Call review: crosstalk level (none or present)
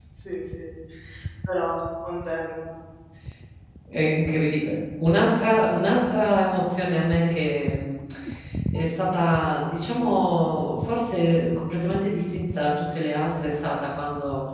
none